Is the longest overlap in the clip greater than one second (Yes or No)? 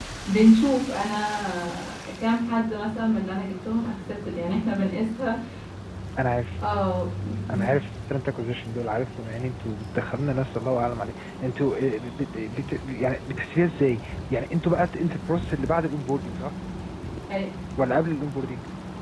No